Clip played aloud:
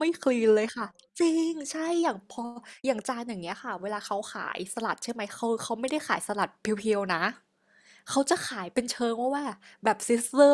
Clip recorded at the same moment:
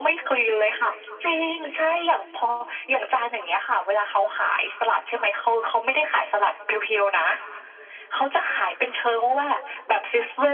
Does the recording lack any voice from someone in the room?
Yes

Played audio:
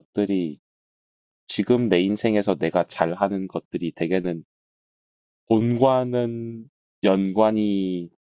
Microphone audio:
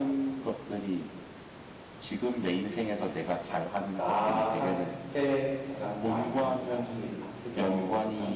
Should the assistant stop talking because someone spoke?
Yes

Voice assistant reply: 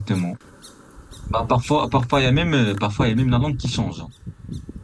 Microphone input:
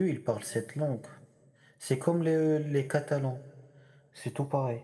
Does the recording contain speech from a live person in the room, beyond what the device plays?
Yes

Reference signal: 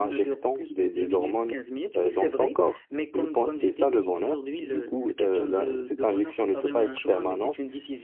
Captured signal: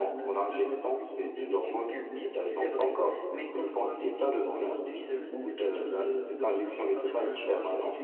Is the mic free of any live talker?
Yes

